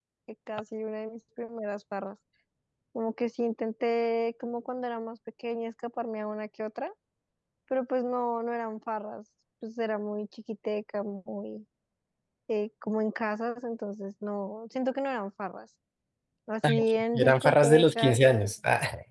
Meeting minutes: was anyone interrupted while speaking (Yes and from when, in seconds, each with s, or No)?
Yes, from 16.7 s